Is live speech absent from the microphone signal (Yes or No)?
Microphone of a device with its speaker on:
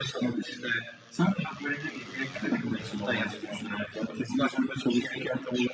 Yes